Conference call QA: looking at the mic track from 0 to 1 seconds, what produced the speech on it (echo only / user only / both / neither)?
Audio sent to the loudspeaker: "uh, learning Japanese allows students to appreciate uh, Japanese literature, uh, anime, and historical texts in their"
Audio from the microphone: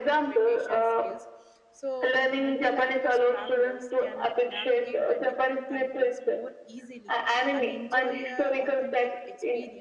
both